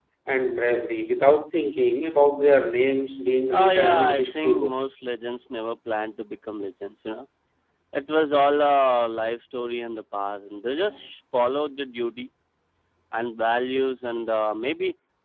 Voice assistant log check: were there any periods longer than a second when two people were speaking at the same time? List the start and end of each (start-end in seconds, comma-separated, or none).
3.6-4.9